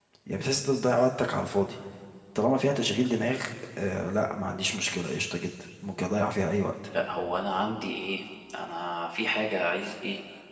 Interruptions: none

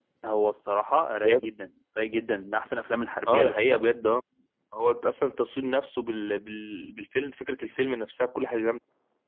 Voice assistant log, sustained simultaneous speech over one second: none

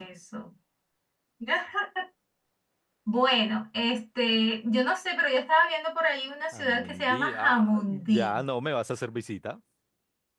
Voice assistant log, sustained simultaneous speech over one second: present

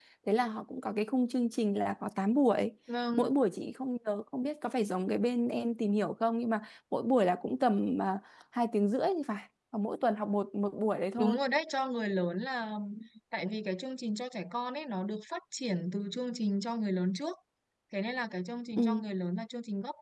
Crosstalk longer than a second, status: none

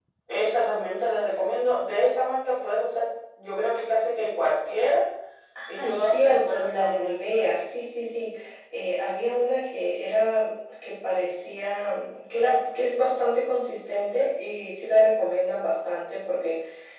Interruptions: present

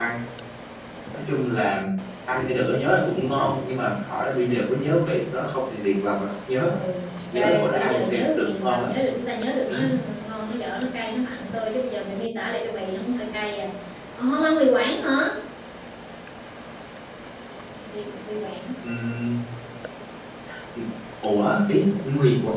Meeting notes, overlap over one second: present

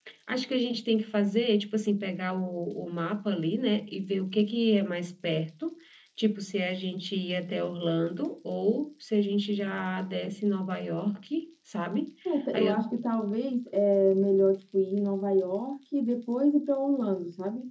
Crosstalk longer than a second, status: none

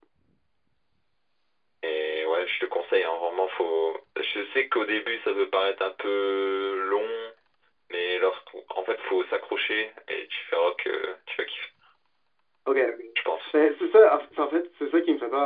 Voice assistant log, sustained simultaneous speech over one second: none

